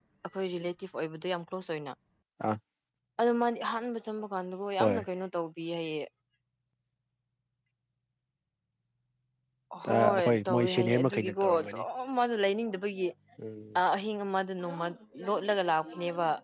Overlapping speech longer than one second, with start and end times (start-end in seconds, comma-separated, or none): 9.9-11.8